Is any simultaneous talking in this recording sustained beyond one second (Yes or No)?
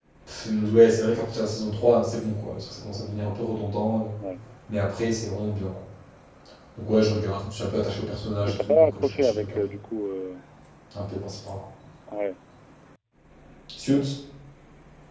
Yes